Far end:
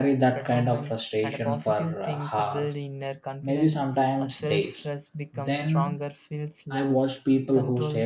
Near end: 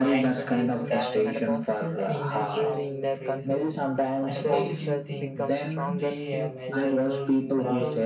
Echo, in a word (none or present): present